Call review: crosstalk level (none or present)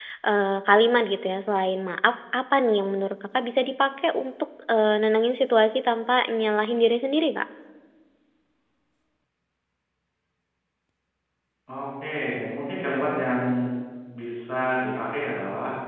none